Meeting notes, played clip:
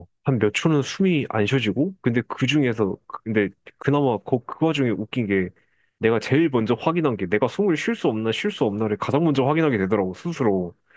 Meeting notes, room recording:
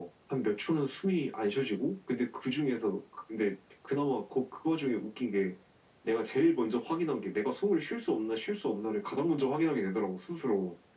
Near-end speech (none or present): none